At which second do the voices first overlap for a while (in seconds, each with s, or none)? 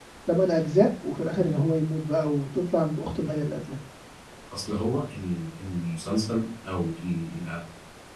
none